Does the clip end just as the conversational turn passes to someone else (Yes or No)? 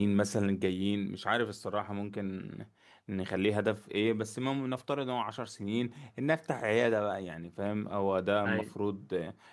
No